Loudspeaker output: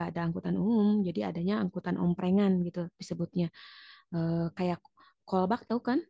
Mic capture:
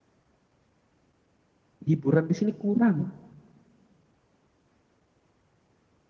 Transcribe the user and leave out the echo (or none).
Hiburan di sini kurang.